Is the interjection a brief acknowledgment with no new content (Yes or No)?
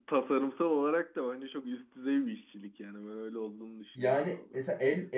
No